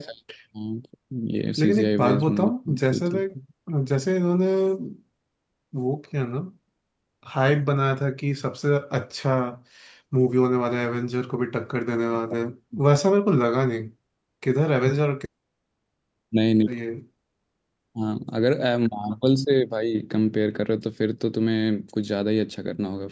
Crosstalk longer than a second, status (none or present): present